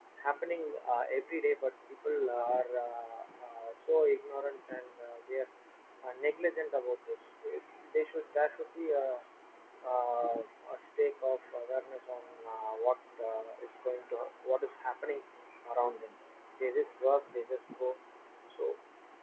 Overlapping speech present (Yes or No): No